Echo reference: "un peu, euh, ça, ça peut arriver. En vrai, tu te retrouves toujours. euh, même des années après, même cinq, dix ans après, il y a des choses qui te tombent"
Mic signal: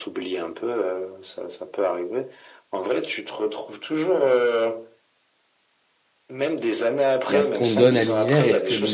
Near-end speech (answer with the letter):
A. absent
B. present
B